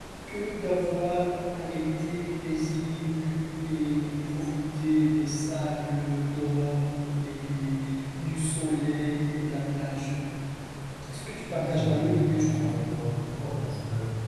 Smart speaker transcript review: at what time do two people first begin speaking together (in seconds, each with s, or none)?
11.5 s